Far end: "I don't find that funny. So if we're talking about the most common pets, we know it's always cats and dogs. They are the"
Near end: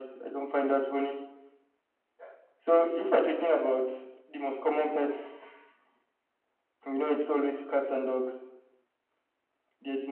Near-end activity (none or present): none